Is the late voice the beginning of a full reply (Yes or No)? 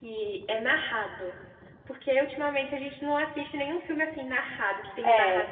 No